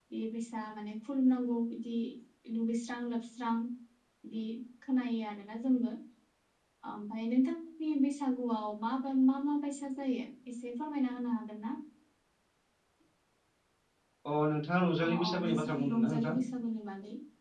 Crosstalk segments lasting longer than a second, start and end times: 15.1-16.4

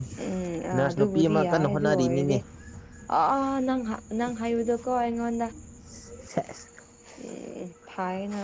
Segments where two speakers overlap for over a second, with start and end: 0.7-2.4

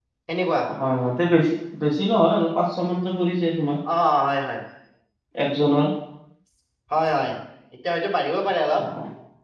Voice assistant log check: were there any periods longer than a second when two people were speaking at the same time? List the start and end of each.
none

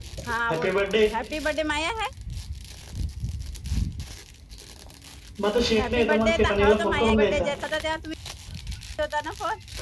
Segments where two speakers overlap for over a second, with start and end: 5.8-7.4

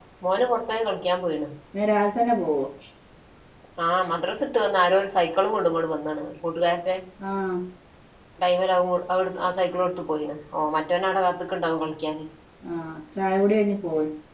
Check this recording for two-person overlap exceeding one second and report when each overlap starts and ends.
none

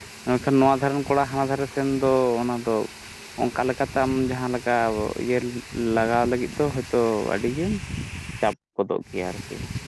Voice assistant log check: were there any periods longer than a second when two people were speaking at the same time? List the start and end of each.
none

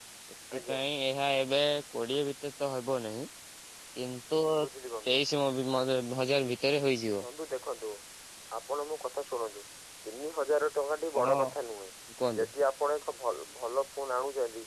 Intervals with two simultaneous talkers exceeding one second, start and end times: none

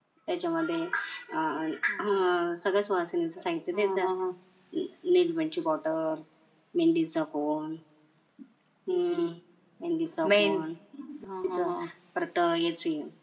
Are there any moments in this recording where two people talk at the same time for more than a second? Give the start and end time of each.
none

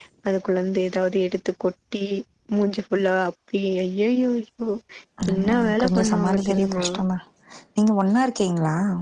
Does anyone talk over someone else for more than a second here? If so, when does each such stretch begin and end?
5.3-6.8

